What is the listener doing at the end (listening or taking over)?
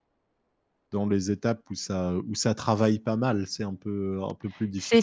taking over